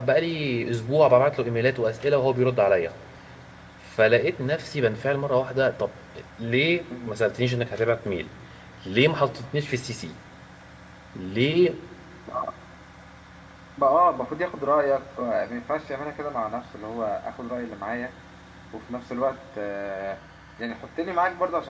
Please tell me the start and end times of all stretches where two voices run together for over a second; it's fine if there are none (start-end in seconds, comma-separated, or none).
none